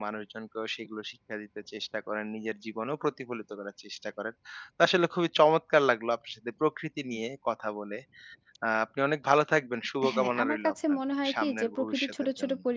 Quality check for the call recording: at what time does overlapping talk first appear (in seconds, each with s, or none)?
10.0 s